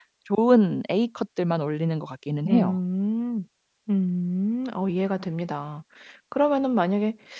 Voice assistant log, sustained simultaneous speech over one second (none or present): none